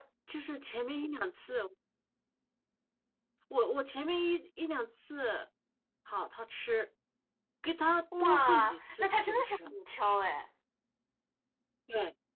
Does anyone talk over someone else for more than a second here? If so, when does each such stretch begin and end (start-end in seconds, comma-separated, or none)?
8.2-9.7